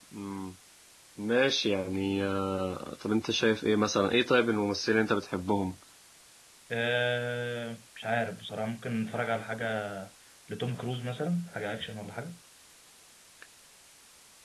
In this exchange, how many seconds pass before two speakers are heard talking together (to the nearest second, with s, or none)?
none